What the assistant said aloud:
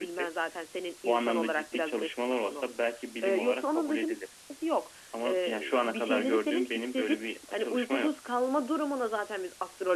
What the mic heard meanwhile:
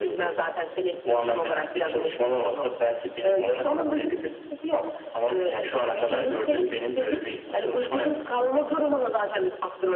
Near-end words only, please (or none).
none